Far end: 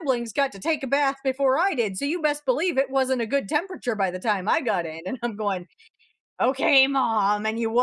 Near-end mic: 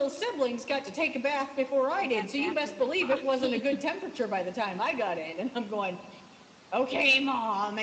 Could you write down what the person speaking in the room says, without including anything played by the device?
I got back with my coffee.

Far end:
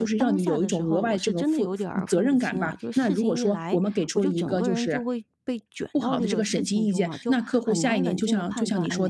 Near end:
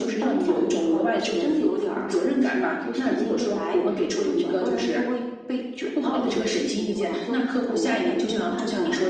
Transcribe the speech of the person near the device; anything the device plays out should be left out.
none

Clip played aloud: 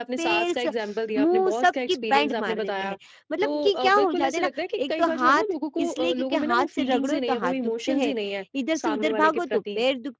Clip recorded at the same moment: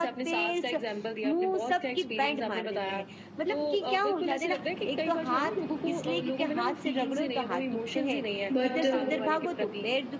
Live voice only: बट

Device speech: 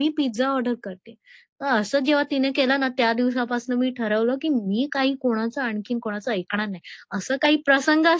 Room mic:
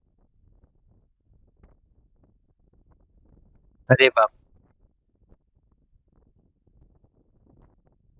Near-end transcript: अरे बाप!

